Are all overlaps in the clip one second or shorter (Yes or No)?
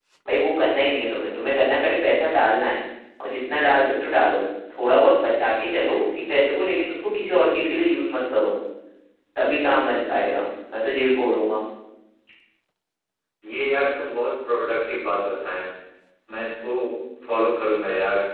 Yes